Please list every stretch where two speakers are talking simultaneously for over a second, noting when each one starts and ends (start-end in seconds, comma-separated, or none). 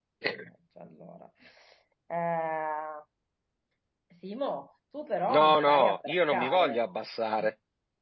5.3-6.8